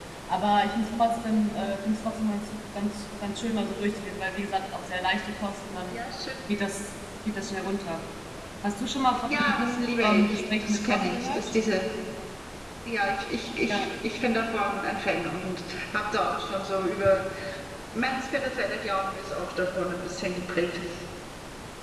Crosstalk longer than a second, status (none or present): present